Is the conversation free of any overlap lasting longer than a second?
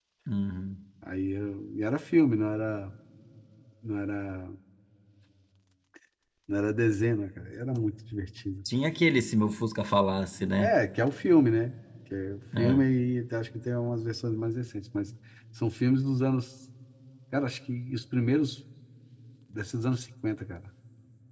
Yes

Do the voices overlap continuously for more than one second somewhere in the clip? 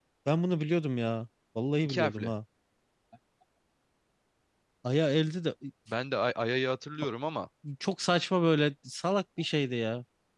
No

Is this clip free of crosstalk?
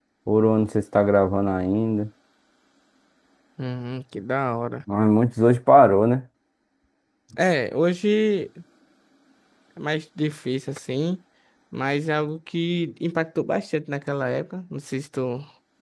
Yes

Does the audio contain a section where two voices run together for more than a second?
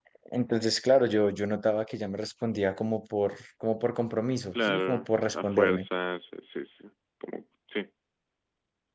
Yes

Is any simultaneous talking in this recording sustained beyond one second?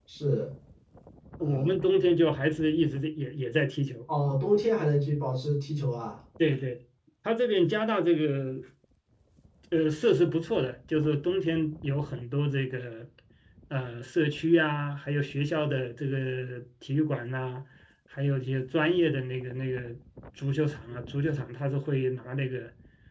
No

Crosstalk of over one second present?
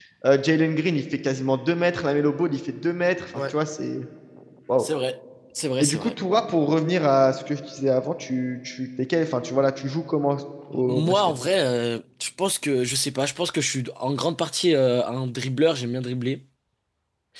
No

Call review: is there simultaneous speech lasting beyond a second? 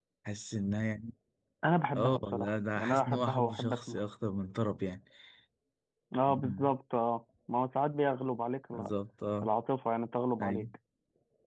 Yes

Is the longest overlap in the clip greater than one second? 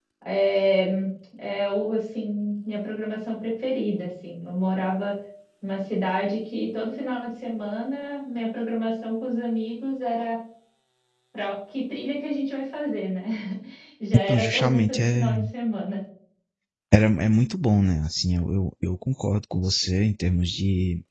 Yes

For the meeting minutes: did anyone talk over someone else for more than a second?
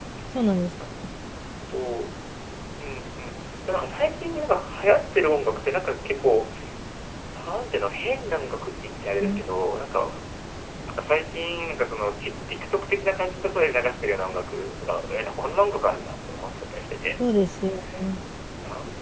No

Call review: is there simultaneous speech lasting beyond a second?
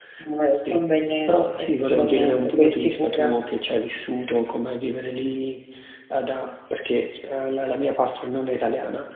Yes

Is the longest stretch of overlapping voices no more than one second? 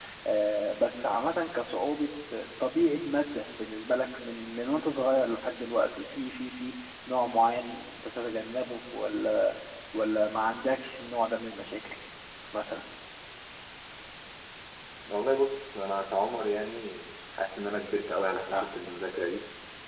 Yes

